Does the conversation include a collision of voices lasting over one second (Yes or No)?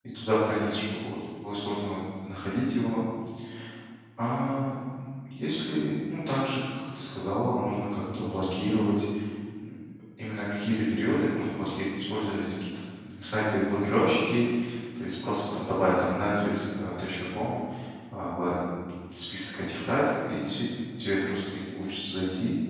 No